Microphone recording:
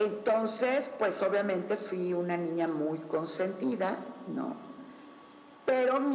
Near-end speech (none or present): none